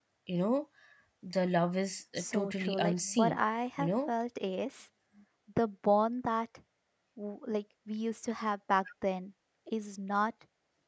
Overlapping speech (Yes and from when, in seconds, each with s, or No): Yes, from 2.2 s